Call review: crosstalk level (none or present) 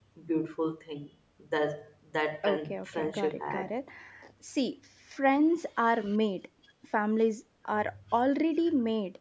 present